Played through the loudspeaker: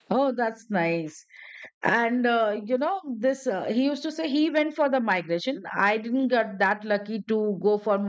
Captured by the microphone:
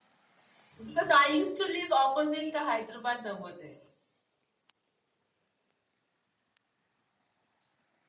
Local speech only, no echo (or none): Because I used to live opposite the Hyderabad Navodaya.